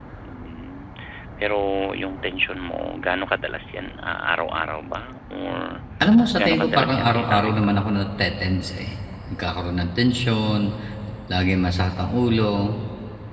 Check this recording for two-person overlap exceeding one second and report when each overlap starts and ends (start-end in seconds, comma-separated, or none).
6.4-7.8